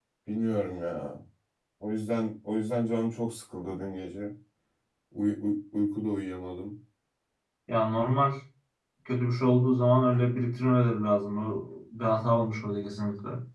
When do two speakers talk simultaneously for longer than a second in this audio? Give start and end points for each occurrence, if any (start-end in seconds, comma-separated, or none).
none